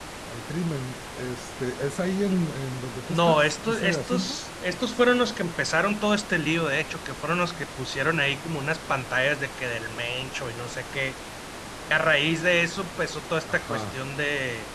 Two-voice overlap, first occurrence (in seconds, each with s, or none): 3.1 s